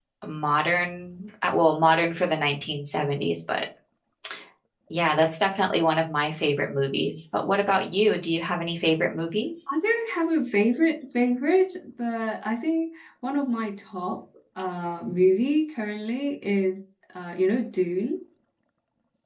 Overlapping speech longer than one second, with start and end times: none

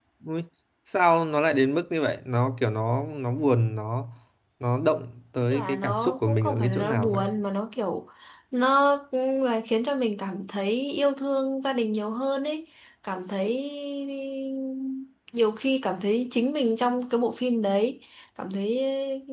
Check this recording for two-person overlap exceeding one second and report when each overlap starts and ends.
5.5-7.2

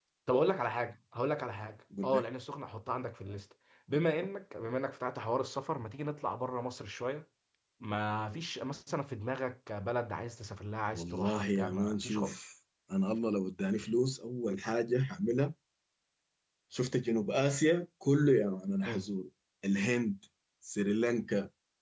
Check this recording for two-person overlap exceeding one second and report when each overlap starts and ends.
10.9-12.4

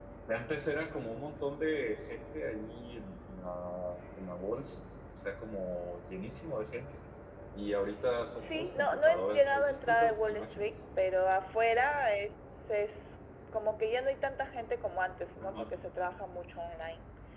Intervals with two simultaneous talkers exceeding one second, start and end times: 8.4-10.7

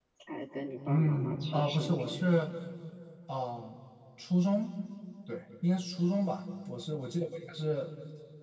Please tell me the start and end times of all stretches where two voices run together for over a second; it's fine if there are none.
0.9-2.3

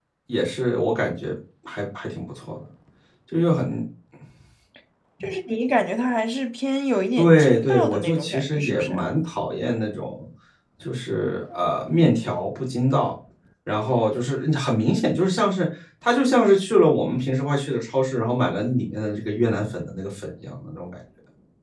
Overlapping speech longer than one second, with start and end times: 7.2-9.1

